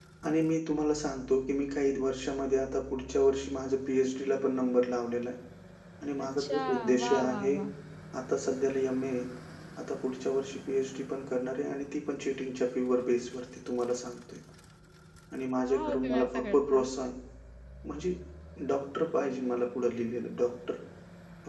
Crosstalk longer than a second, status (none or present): present